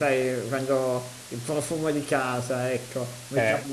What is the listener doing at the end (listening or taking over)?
listening